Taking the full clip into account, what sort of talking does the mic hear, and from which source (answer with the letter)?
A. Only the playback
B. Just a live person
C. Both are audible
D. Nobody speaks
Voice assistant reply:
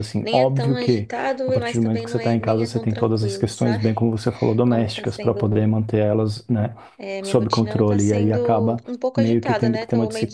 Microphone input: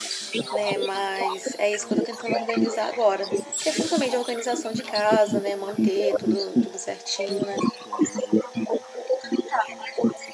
C